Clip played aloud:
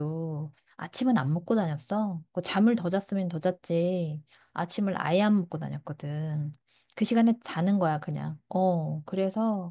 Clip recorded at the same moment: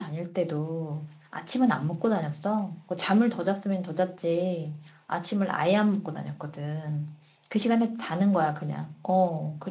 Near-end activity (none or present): none